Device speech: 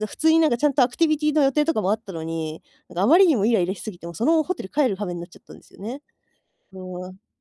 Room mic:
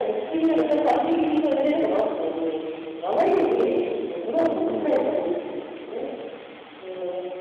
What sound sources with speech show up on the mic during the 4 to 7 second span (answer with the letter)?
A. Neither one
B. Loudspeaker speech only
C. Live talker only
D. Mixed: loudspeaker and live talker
D